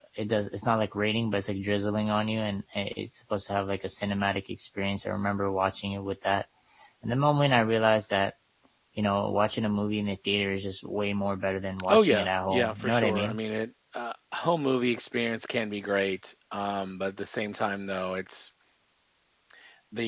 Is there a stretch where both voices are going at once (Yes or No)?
Yes